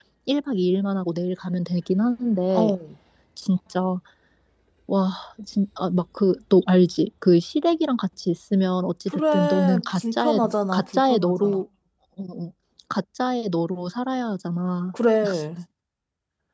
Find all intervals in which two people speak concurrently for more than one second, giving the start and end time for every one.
9.1-11.6

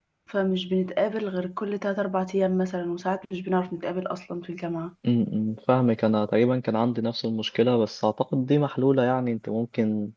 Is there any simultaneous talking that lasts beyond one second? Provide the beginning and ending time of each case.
none

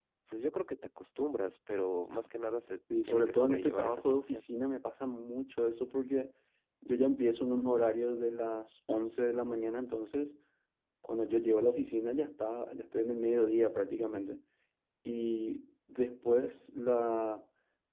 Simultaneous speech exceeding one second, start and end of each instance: 3.0-4.4

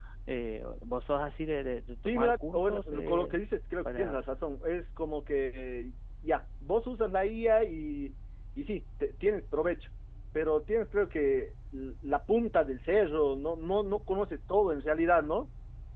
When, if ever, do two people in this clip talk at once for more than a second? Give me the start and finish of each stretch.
2.0-3.4

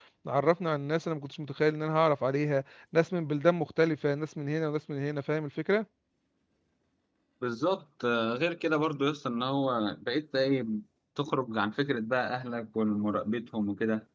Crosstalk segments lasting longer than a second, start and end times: none

